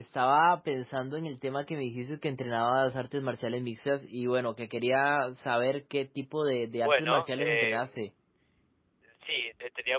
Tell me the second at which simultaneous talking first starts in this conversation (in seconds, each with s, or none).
6.8 s